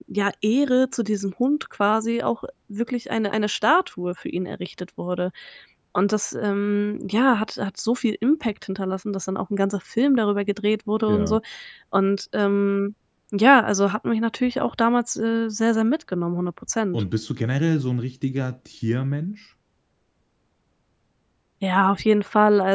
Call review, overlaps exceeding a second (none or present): none